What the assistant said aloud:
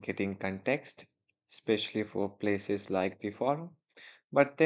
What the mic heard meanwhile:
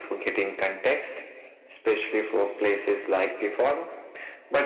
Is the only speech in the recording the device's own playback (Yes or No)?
Yes